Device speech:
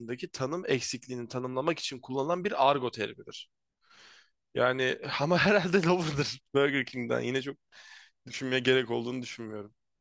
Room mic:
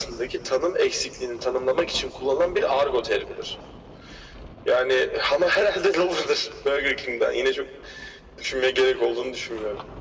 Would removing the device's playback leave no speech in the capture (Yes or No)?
Yes